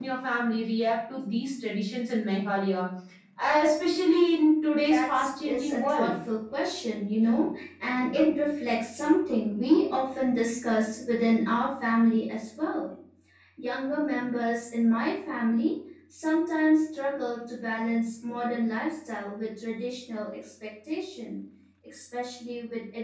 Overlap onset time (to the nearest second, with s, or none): 5 s